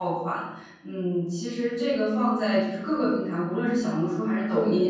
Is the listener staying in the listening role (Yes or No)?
Yes